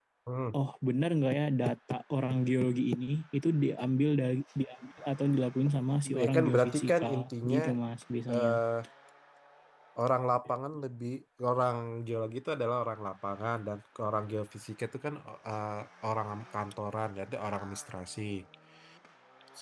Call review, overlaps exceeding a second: present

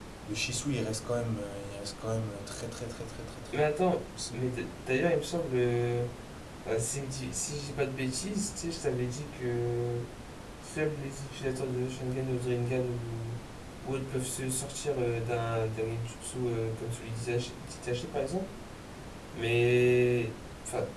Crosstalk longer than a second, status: none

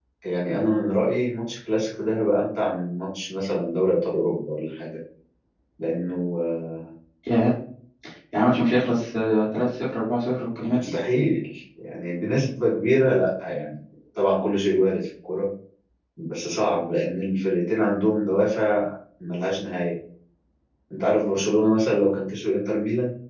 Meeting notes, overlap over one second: none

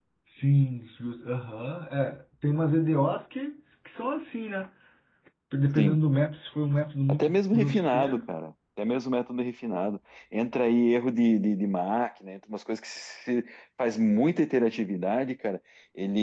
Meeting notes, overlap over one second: present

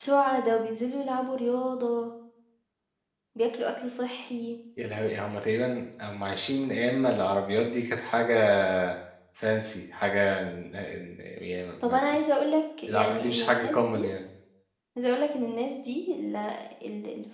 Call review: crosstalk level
present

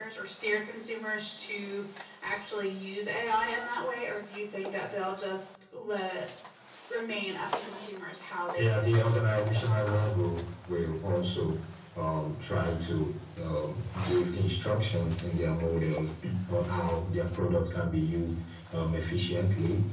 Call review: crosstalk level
present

